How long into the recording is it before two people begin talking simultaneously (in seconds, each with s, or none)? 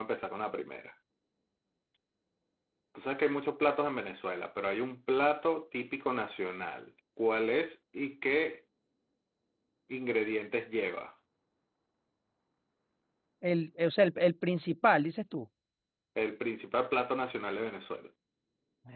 none